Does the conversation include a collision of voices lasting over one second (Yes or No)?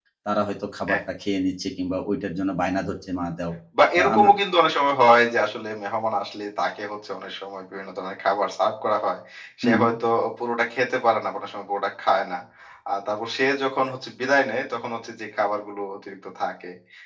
No